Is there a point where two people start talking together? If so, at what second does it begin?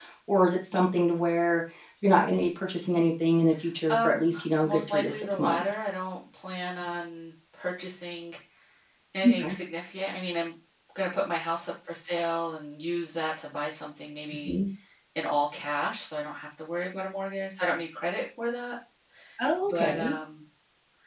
3.9 s

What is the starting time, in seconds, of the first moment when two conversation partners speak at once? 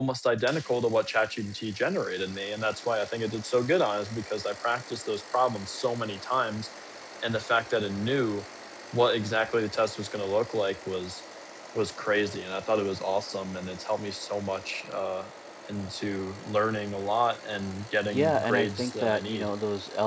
18.0 s

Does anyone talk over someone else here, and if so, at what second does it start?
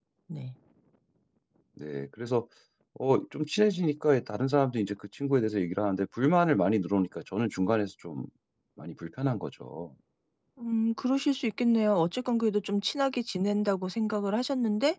none

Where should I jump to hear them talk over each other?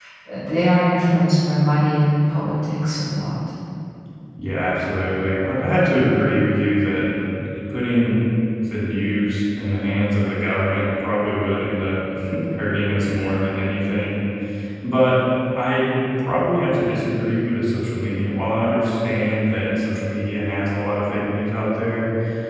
none

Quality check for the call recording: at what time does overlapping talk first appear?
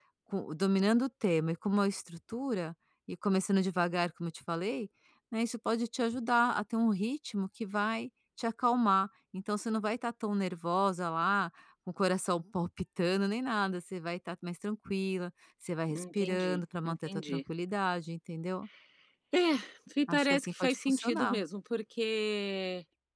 15.9 s

